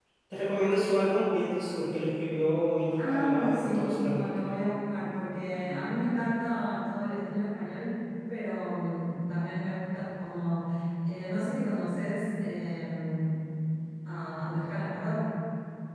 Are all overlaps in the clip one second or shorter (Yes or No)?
No